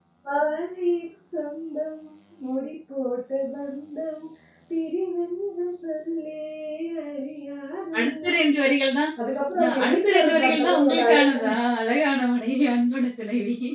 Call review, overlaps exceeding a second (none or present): present